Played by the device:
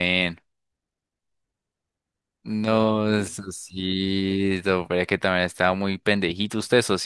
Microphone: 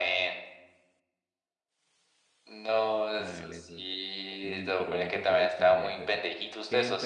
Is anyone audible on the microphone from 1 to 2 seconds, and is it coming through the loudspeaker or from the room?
neither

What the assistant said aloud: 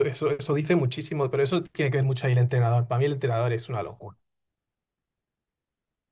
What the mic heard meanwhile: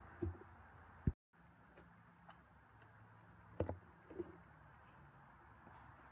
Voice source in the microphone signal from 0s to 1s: neither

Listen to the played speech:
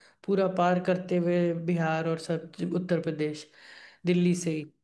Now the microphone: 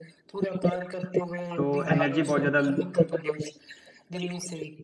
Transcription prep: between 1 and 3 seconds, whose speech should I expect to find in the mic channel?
both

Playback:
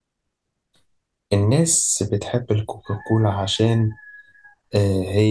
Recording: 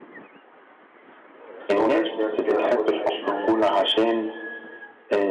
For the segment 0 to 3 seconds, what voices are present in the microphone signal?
both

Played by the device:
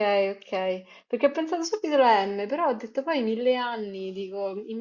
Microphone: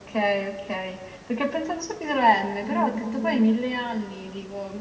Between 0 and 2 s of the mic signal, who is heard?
echo only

